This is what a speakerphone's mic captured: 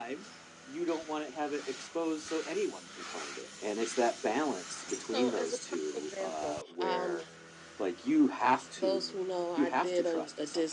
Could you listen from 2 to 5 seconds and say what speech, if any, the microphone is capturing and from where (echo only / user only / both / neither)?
echo only